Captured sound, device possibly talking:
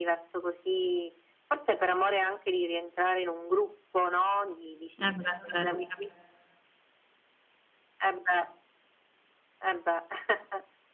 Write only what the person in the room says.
Eh beh, vero. Capisco.

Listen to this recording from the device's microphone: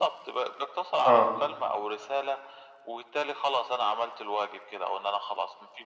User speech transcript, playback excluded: آه.

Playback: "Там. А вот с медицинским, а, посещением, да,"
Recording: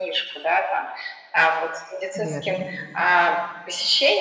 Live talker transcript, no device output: Верно.

